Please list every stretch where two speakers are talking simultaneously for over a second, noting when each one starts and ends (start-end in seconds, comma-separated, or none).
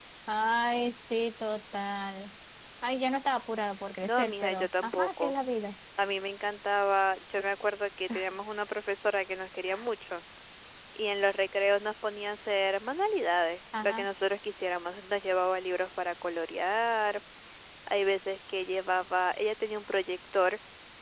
4.0-5.4